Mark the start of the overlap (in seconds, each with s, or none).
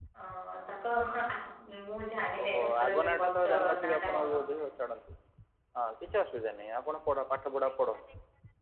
2.4 s